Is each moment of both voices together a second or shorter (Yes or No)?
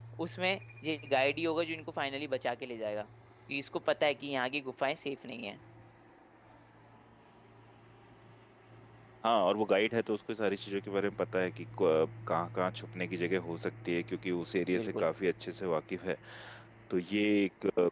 Yes